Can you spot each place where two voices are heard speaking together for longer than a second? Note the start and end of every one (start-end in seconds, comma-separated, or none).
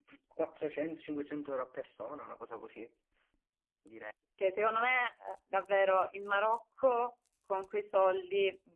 none